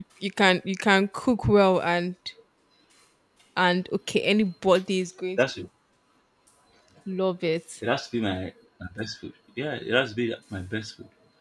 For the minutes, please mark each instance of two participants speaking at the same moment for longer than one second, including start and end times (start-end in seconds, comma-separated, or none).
none